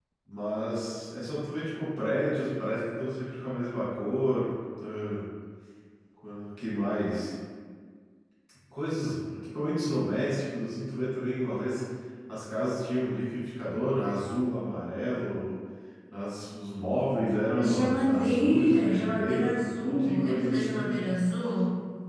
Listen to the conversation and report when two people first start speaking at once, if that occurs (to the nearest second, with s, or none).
17 s